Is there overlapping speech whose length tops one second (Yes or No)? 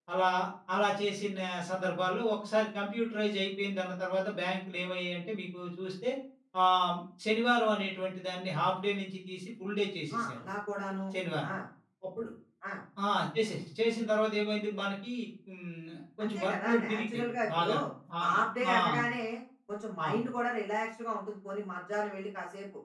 Yes